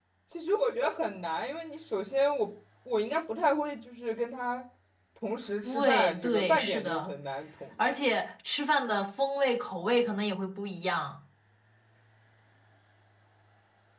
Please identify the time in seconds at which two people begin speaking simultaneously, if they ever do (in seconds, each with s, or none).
5.6 s